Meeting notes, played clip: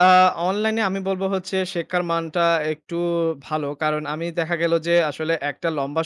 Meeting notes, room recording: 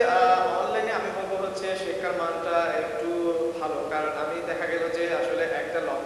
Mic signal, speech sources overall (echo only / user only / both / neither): echo only